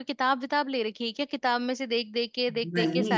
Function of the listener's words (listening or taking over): taking over